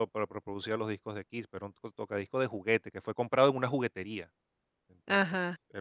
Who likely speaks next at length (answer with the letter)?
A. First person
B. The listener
A